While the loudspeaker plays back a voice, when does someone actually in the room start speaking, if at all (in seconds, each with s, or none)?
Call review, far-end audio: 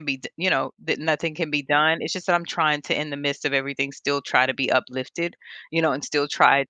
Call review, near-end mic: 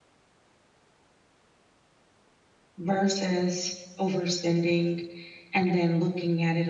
2.8 s